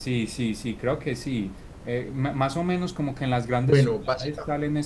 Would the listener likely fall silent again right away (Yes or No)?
Yes